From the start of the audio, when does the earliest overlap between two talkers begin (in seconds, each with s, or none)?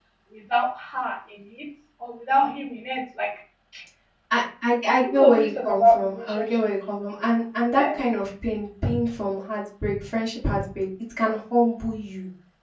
5.0 s